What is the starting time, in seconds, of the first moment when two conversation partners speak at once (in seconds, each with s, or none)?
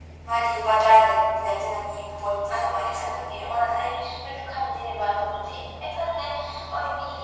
2.5 s